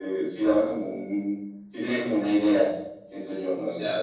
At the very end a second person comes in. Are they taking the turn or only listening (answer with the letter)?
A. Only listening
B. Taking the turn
B